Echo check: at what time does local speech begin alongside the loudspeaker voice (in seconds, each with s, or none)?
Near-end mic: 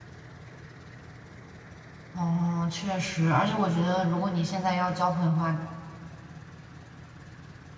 2.1 s